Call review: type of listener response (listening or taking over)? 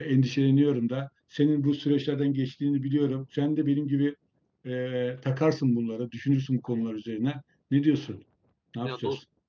taking over